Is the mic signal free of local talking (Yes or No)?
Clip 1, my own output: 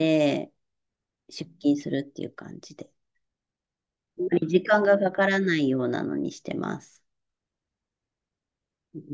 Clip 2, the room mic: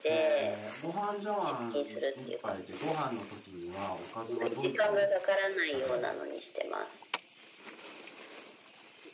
No